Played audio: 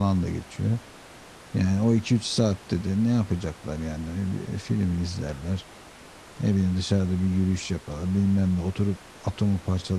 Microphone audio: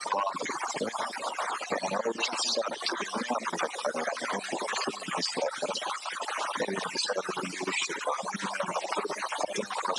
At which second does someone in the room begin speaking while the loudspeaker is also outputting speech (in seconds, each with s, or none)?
none